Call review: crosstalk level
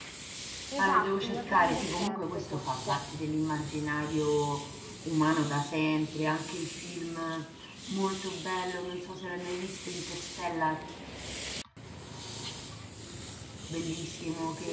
present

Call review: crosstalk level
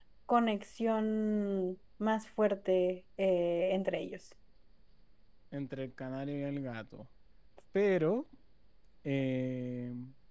none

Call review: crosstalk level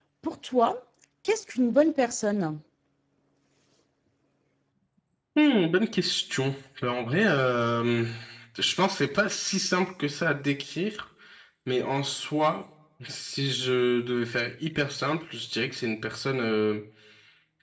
none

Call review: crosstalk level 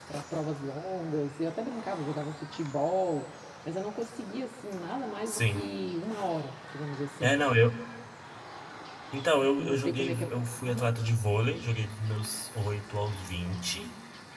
present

